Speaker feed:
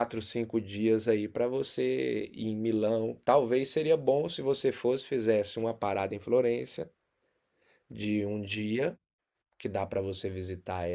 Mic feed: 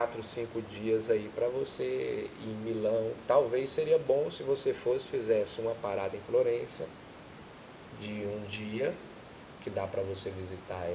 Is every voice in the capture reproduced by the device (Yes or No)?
Yes